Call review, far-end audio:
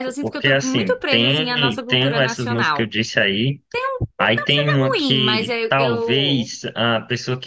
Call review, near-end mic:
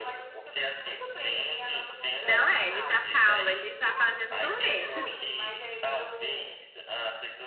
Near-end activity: present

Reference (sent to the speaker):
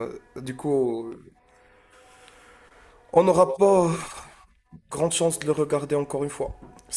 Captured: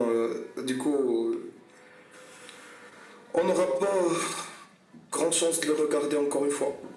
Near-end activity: none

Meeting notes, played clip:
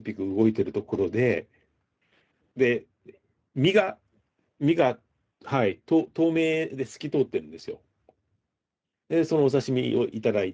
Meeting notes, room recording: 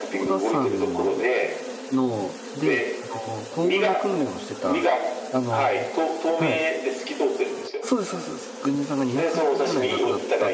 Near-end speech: present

